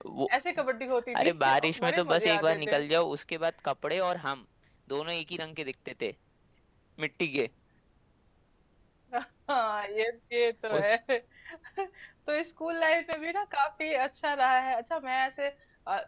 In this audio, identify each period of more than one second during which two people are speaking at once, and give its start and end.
1.2-2.8

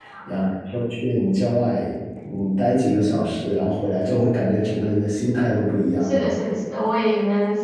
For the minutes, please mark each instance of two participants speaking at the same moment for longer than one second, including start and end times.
none

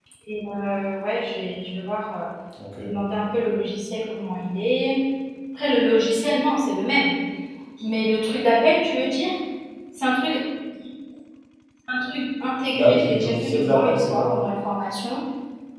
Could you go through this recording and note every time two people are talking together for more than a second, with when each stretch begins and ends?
12.7-14.3

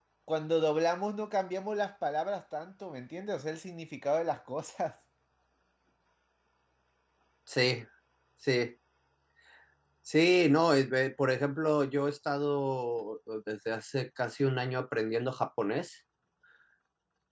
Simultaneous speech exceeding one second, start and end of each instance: none

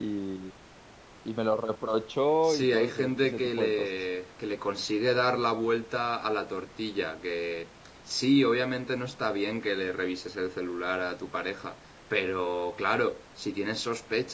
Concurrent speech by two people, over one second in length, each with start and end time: 2.4-3.9

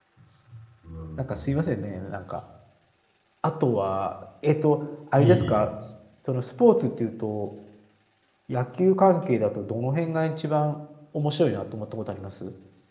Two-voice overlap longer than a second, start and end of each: none

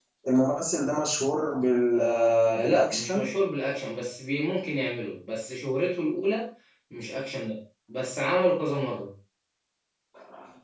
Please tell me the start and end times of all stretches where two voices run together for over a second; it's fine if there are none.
1.9-3.2

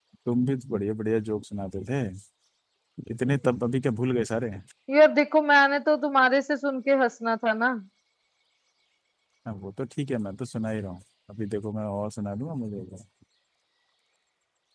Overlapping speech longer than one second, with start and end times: none

